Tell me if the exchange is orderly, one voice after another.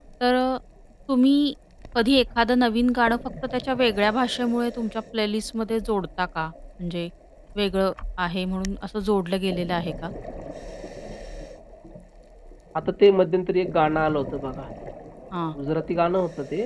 Yes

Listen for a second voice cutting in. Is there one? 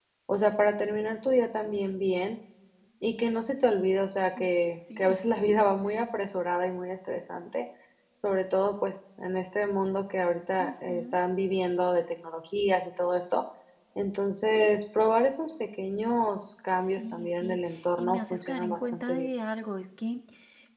Yes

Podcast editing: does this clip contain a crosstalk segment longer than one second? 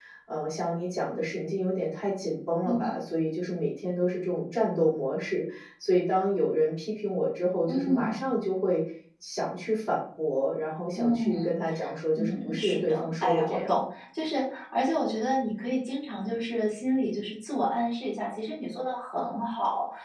Yes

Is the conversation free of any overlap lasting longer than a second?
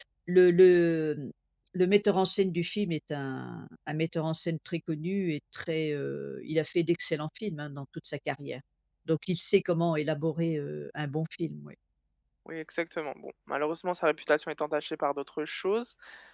Yes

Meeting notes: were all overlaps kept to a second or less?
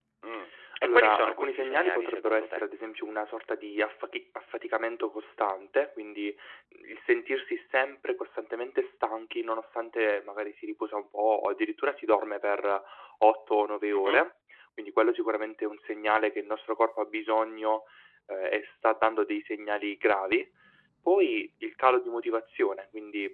No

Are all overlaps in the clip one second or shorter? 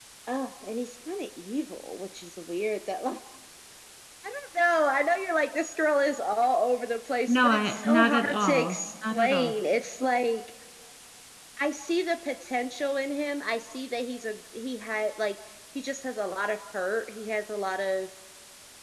No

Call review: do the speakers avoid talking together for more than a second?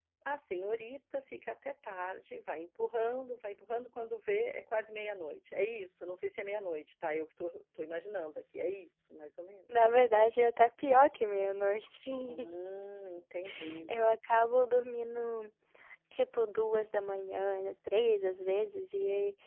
Yes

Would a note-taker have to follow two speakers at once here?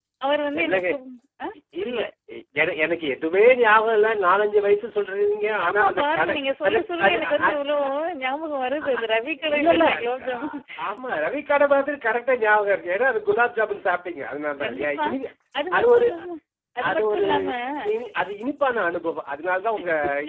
Yes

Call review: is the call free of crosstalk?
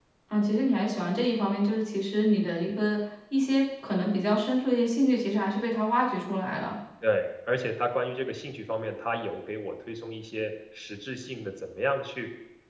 Yes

